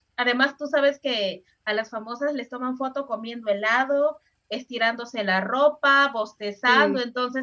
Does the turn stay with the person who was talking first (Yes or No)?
Yes